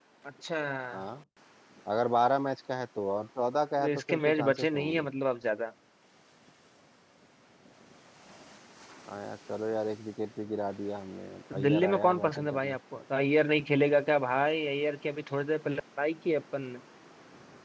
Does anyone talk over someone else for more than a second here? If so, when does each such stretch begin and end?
3.8-5.0, 11.5-12.8

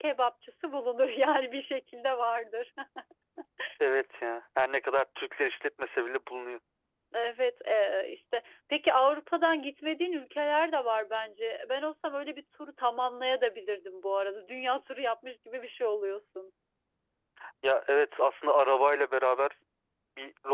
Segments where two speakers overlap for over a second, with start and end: none

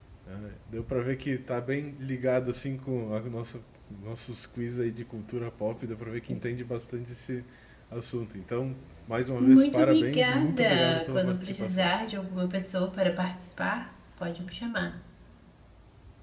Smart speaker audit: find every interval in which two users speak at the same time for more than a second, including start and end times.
9.4-11.9

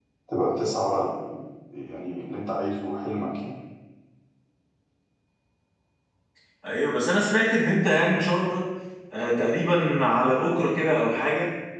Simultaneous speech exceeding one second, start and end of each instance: none

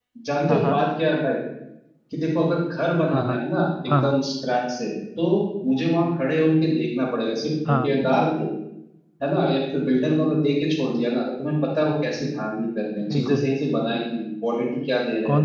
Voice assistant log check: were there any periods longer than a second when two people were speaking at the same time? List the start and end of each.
none

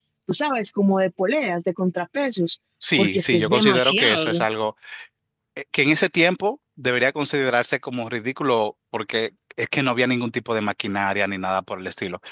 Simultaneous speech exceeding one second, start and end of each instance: 3.0-4.4

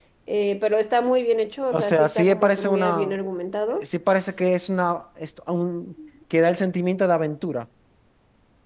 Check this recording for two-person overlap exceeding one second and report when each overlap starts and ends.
1.7-3.2

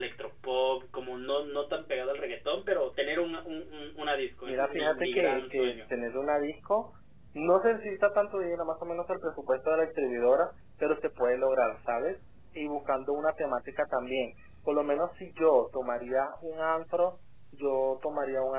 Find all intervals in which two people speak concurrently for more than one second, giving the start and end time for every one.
4.4-5.8

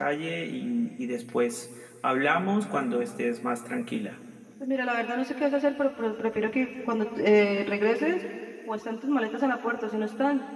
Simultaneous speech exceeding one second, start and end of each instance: none

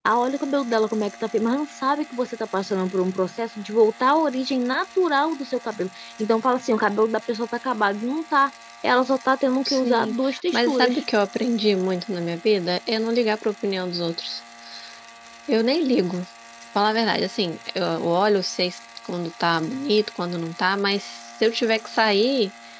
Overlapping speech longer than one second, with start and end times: 9.6-11.0

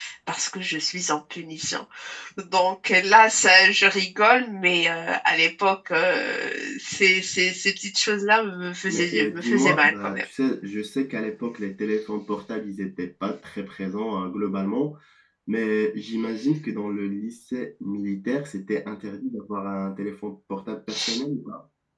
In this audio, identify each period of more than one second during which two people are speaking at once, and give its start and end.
8.9-10.2

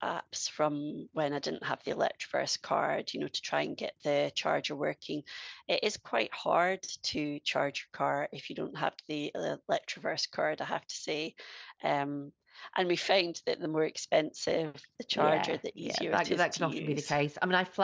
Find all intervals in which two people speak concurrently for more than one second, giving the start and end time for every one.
15.1-17.1

